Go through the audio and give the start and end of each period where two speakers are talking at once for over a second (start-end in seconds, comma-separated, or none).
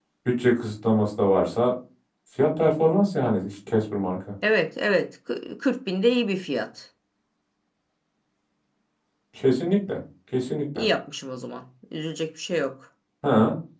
none